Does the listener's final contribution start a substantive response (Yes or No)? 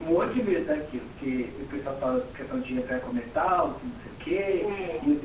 No